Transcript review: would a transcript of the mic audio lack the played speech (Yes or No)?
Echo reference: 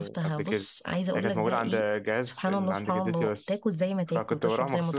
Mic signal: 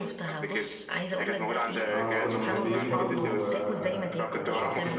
No